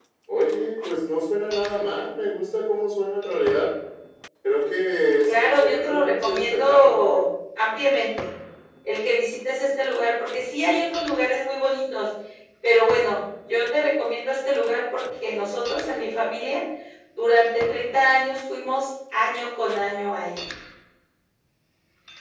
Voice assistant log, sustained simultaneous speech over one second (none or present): present